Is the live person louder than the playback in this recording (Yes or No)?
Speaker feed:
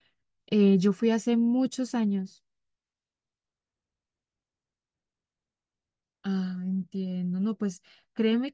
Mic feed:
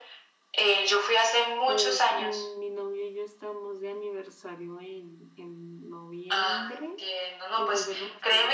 No